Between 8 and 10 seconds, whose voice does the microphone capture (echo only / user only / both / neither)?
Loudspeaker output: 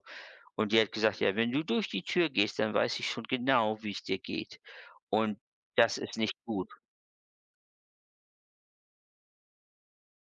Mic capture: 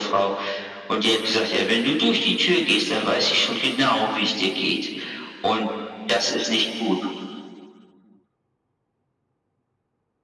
neither